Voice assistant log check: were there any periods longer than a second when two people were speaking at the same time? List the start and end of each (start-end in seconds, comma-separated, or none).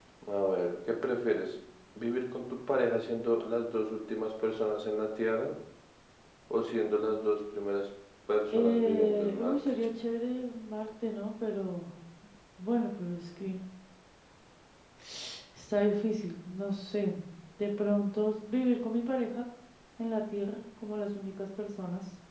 8.5-9.7